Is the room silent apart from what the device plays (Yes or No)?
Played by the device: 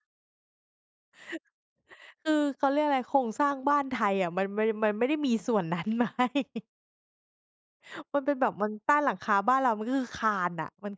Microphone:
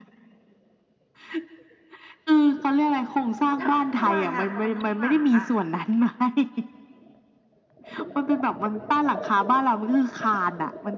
No